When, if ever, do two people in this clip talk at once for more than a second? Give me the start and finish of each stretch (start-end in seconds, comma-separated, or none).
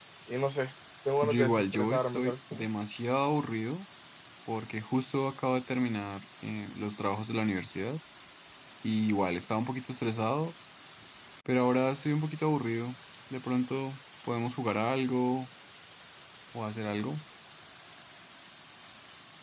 1.2-2.6